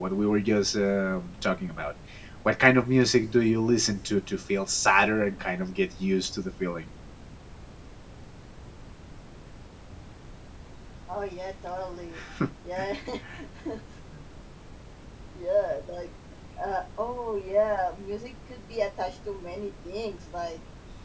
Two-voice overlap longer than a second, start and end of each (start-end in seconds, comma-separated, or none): none